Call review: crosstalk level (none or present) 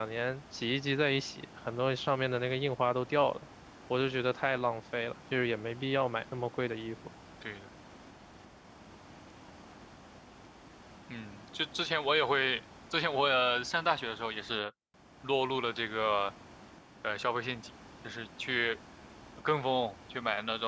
none